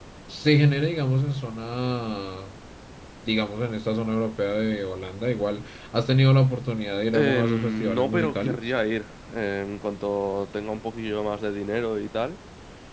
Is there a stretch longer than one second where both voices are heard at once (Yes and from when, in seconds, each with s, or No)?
Yes, from 7.1 s